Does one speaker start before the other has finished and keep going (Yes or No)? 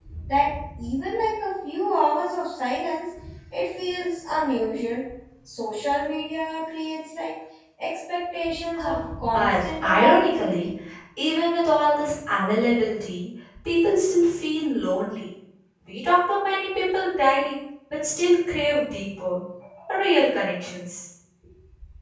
Yes